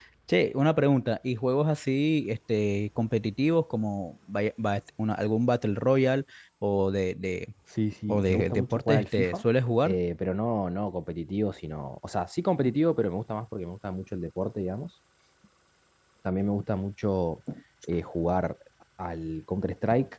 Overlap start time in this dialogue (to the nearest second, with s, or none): 8 s